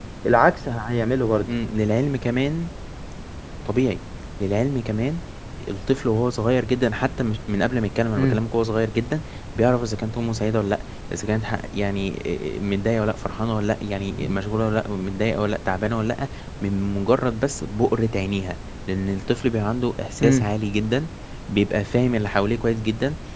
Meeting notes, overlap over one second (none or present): none